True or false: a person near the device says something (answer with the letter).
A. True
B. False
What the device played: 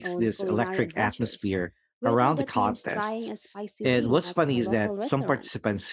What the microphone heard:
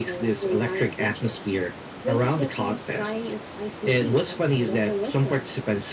B